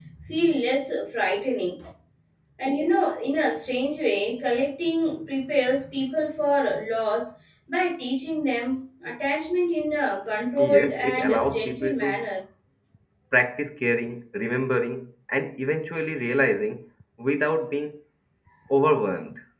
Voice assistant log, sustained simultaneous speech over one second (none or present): present